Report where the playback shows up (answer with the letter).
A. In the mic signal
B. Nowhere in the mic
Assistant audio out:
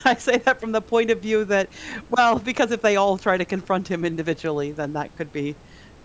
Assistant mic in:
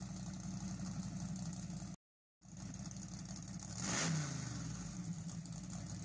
B